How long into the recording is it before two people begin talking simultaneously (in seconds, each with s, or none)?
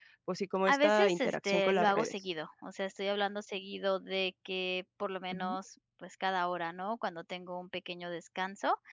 0.7 s